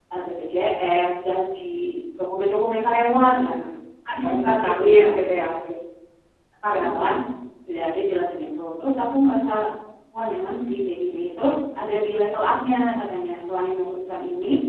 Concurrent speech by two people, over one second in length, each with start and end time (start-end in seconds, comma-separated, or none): 4.2-5.5